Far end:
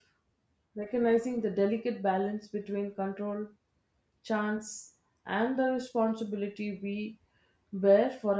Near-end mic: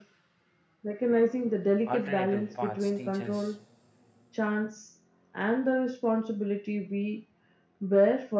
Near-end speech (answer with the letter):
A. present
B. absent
A